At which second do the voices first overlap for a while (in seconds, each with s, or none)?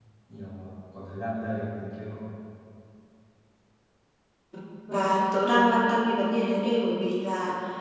none